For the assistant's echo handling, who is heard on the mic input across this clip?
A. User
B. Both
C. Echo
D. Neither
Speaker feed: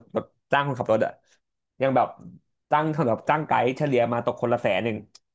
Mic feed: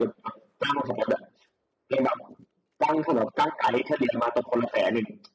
C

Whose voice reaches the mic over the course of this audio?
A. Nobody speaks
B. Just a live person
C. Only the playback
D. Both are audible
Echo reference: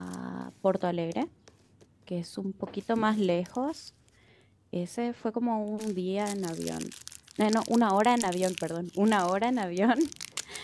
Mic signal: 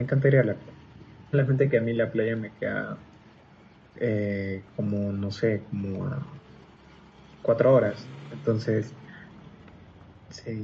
B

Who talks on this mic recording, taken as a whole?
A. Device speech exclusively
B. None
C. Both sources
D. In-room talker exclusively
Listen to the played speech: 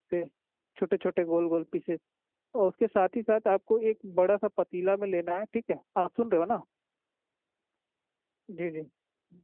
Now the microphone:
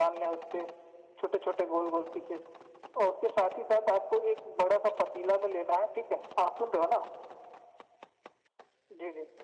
A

